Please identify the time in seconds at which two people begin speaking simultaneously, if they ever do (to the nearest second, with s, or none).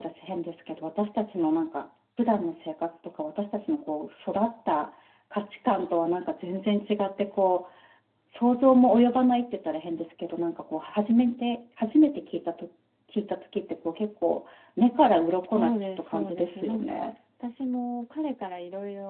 15 s